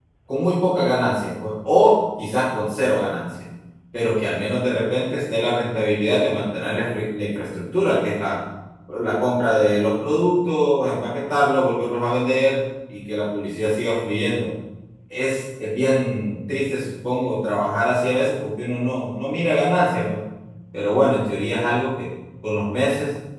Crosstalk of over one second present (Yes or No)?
No